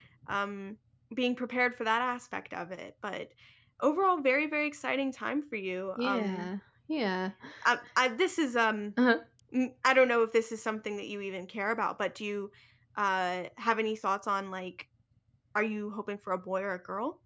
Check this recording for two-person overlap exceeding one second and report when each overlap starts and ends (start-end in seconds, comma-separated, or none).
none